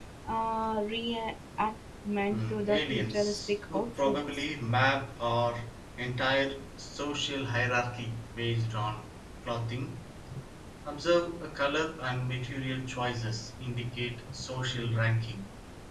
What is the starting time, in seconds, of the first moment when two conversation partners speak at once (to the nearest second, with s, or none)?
2 s